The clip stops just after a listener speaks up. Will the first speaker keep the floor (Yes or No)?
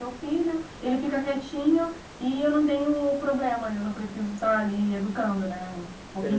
No